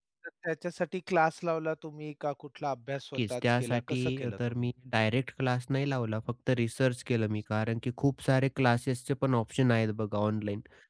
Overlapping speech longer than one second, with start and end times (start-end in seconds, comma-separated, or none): 3.1-4.7